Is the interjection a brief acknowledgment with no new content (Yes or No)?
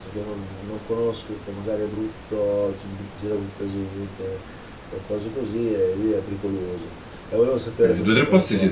No